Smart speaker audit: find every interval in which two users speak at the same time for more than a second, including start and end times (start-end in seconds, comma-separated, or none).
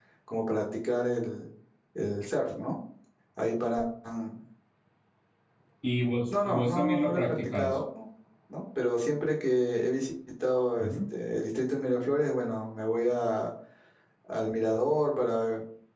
6.3-7.8